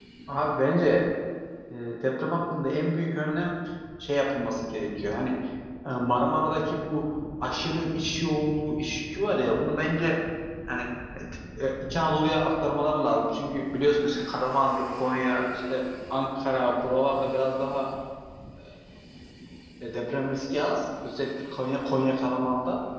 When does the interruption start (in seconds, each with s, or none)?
none